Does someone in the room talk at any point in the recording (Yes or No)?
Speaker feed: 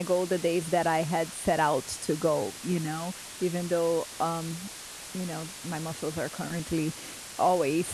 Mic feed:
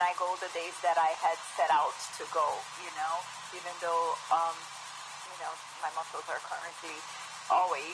No